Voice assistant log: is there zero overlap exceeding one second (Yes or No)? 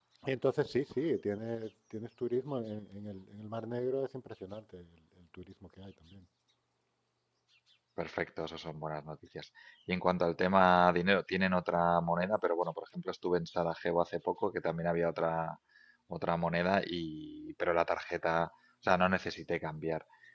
Yes